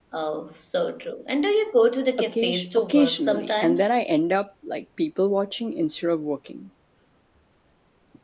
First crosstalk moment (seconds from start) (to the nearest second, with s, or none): 2 s